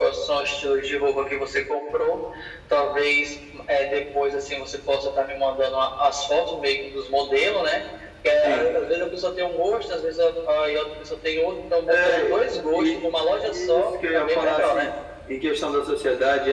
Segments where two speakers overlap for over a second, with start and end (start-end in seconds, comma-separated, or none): 13.4-14.9